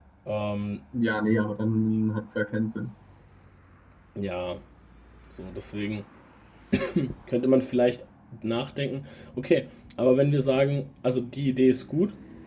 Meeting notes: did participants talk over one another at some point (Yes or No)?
No